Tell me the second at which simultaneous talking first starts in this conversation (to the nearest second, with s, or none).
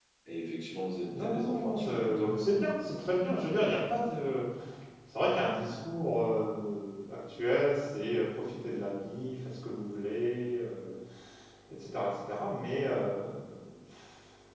1 s